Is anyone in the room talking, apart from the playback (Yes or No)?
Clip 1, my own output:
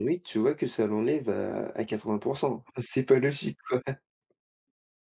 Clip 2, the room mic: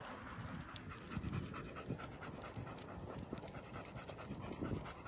No